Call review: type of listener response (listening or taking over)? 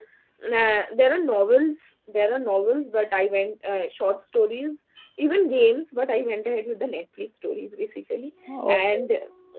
listening